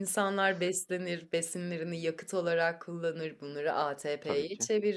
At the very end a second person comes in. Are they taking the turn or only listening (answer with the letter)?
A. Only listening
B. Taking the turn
A